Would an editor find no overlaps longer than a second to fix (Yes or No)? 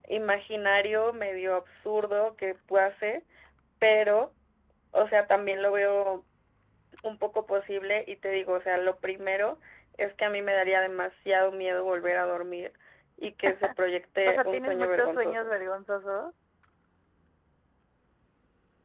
No